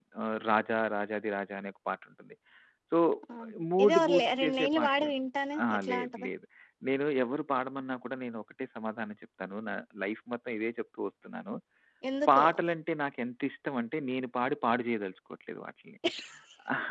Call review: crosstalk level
present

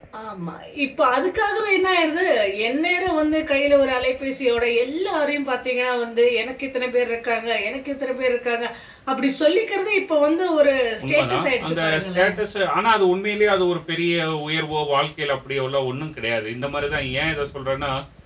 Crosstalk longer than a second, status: present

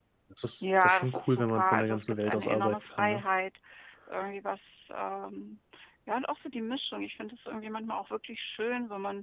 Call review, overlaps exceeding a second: present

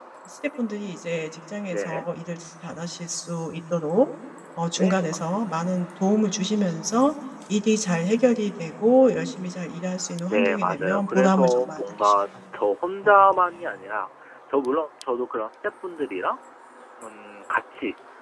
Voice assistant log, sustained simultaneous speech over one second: present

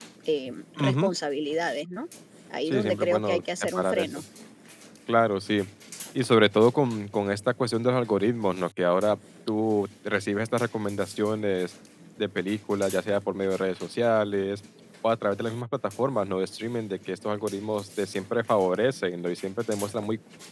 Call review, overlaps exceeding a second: present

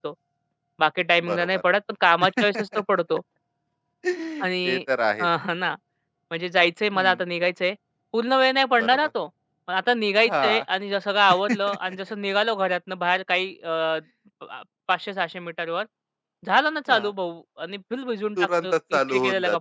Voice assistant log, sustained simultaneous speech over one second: present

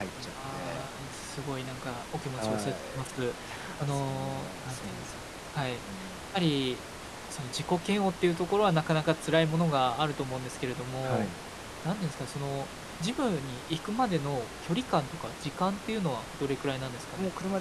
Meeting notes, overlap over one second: present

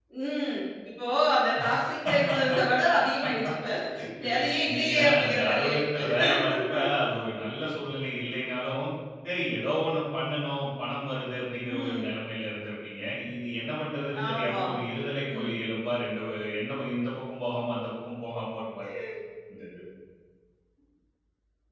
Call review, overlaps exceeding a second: present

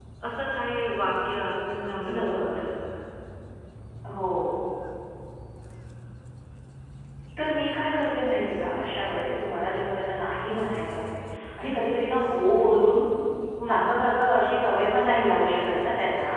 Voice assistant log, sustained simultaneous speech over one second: none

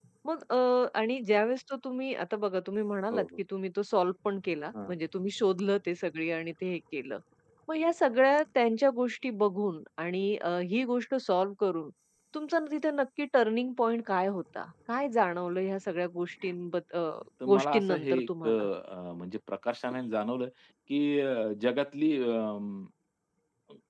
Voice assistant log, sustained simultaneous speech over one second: present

